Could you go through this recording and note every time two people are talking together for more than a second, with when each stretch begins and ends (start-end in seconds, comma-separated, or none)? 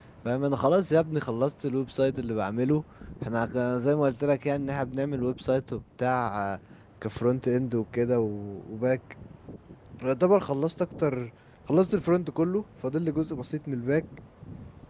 none